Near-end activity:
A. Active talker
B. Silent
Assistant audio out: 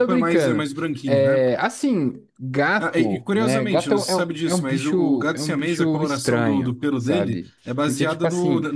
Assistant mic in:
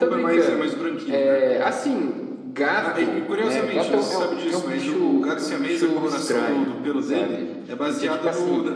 B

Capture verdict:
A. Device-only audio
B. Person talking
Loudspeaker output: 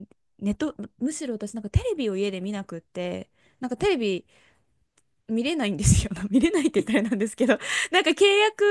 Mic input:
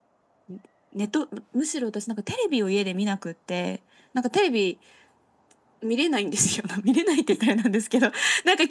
A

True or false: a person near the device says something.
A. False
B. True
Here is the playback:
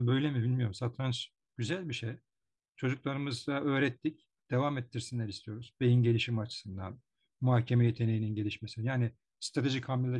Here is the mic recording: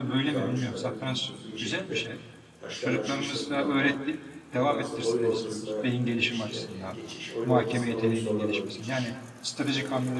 B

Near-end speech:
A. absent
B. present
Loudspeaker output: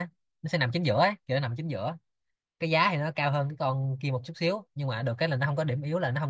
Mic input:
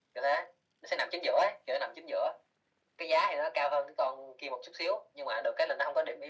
A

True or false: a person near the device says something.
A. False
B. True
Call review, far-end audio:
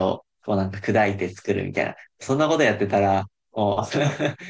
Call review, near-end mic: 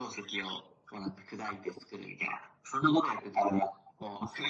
A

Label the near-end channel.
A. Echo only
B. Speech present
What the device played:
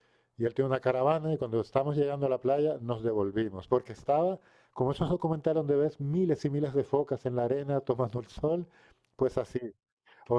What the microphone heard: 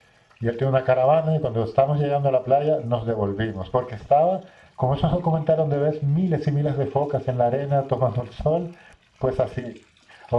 A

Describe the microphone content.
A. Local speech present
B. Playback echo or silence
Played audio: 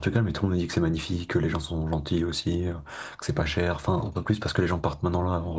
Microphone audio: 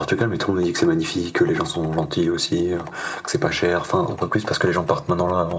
B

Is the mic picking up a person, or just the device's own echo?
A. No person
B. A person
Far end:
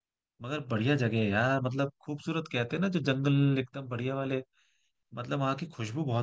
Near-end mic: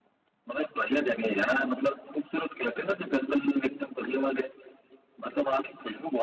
A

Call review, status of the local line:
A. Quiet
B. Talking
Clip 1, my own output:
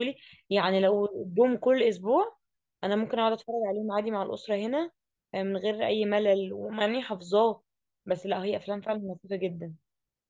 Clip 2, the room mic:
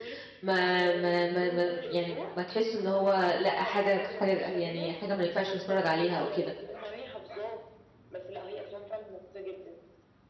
B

